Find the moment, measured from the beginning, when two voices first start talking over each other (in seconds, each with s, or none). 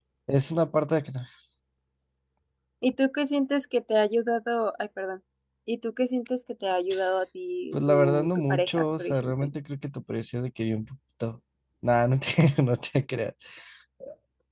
7.7 s